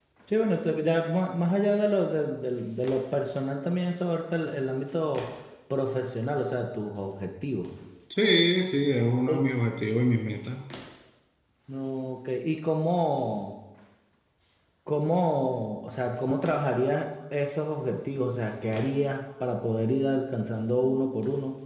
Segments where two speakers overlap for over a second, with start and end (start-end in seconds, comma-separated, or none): none